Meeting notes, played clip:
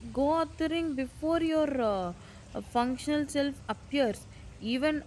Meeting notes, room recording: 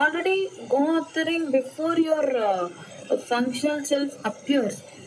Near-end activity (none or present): none